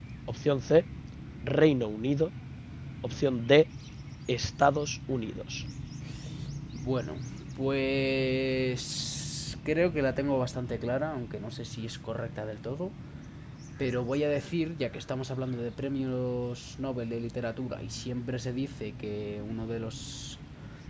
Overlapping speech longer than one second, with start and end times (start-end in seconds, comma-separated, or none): none